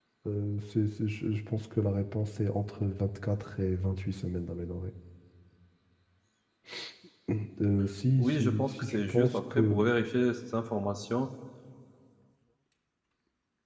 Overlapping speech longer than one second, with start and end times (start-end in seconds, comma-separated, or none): 8.2-9.9